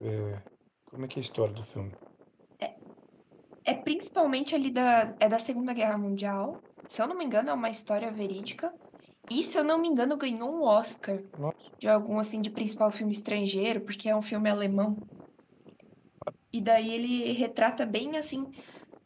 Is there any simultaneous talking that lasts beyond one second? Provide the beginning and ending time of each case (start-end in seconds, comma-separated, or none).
none